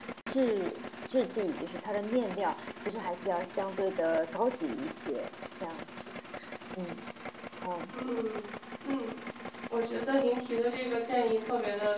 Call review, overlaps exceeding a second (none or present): none